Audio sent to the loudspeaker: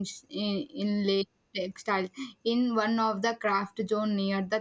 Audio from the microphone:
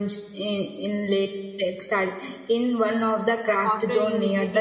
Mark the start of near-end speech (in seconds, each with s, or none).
3.6 s